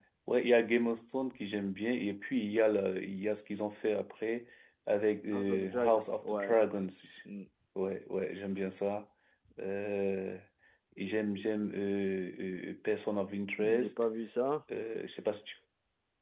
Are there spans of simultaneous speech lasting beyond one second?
Yes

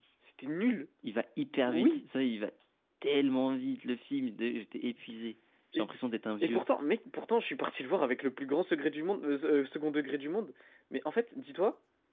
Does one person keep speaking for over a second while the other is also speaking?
No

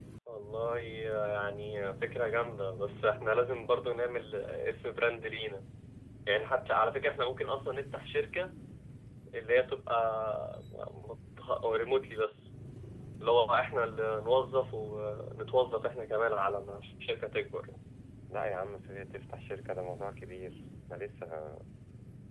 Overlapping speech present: No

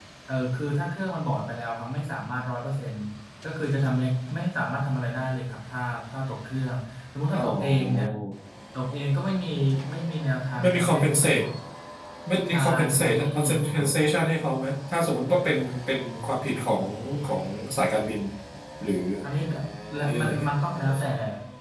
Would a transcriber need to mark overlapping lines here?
Yes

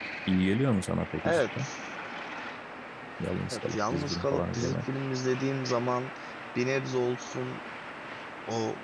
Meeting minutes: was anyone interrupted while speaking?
Yes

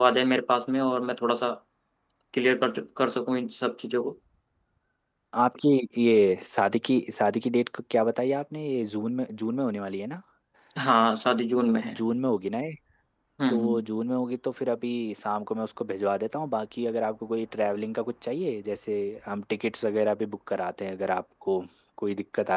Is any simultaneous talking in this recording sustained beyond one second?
No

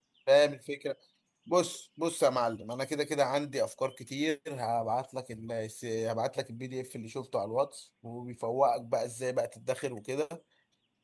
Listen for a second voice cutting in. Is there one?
No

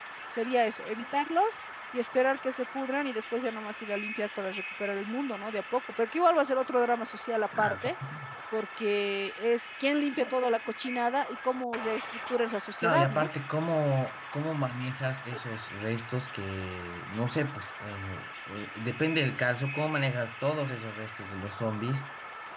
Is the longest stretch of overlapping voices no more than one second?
Yes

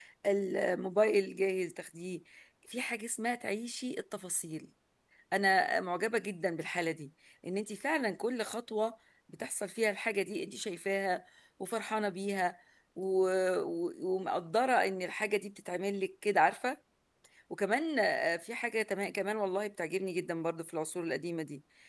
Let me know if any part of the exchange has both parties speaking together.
No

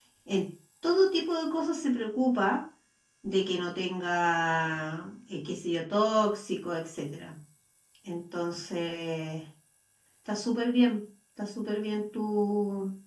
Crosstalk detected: No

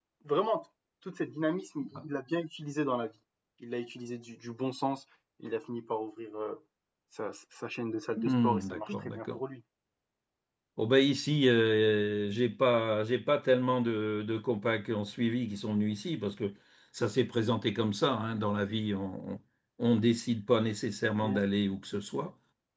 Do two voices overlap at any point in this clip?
Yes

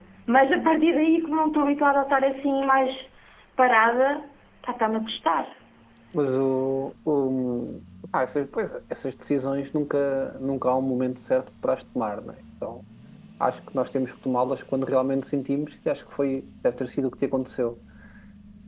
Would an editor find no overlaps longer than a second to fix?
Yes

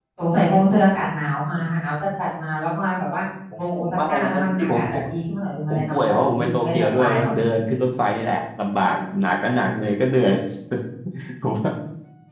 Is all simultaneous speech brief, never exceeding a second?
No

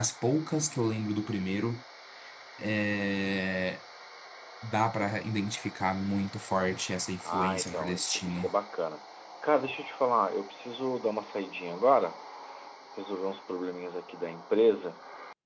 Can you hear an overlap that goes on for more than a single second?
Yes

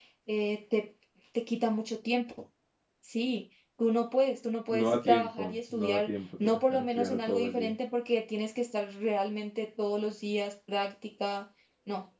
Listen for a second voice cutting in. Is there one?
Yes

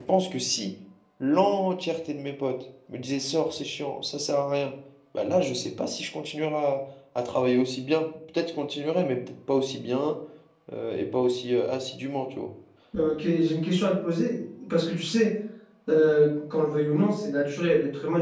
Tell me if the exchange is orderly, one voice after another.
Yes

